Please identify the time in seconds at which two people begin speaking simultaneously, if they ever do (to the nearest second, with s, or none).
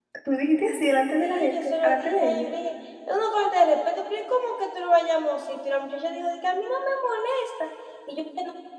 1 s